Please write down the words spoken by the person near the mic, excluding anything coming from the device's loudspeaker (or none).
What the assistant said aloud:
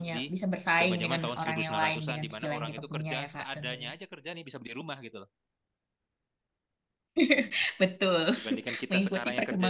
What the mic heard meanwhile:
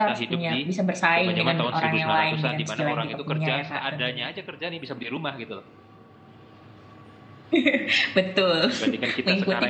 none